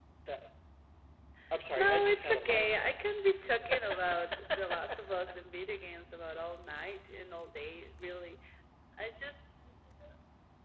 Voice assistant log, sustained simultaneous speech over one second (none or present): present